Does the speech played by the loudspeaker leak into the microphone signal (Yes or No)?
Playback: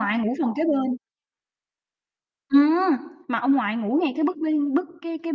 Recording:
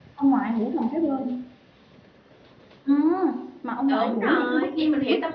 Yes